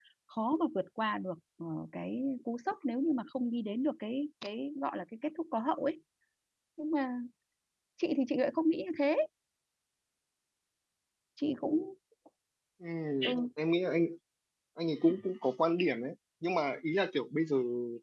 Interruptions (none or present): none